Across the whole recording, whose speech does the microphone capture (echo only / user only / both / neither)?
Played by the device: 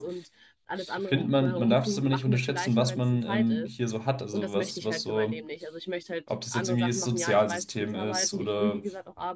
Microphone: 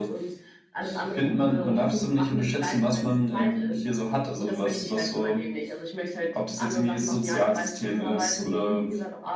echo only